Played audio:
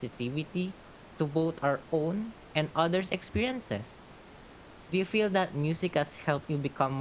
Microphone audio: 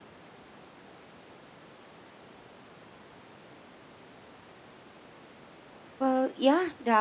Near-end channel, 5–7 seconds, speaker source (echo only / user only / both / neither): user only